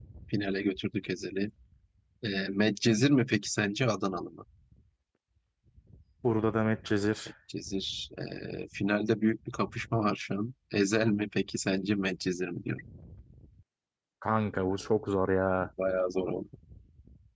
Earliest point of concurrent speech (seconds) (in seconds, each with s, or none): none